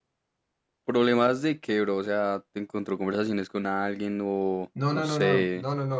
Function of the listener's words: taking over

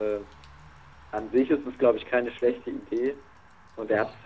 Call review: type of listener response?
listening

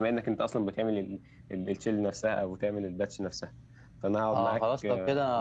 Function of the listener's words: taking over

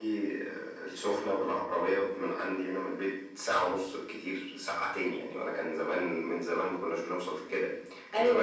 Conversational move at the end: listening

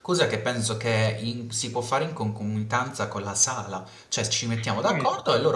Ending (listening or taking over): listening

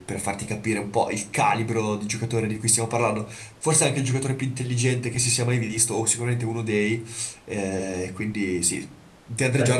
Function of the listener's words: listening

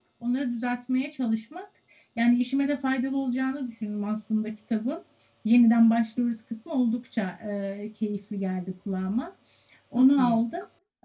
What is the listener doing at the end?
listening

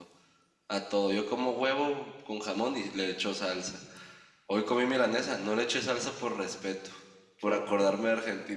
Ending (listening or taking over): listening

